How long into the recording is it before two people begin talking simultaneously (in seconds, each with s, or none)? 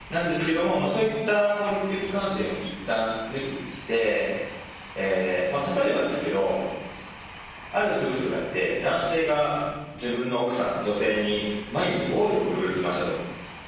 none